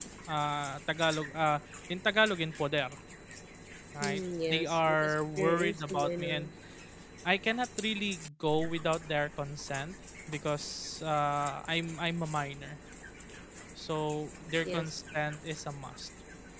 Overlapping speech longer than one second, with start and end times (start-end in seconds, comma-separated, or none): 4.0-6.5